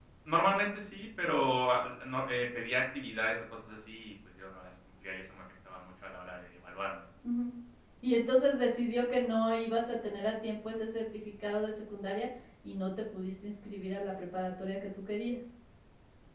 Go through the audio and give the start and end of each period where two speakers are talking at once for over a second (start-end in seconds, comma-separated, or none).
none